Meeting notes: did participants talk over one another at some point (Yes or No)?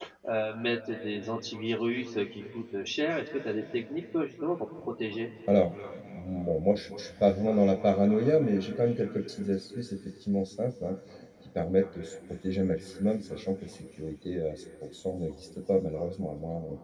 No